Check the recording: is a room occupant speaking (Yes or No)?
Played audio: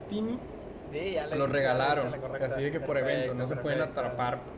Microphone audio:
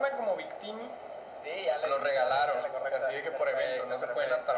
No